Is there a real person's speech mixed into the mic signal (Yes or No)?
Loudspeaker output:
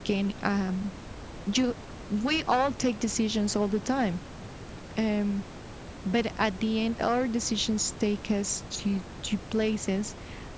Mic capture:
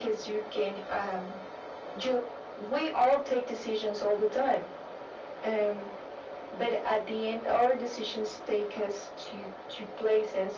No